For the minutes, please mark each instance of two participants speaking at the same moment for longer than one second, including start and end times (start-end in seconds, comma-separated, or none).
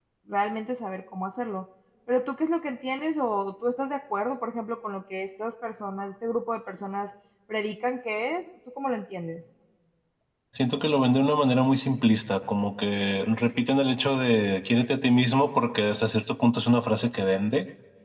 none